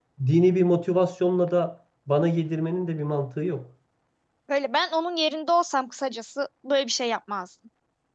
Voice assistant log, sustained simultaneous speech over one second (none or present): none